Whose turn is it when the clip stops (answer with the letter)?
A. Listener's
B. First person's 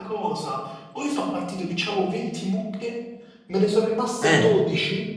B